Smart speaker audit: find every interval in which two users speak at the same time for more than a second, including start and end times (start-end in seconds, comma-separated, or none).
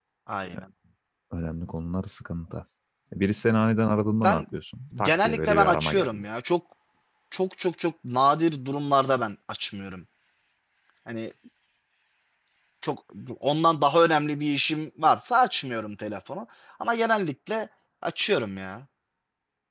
5.0-6.2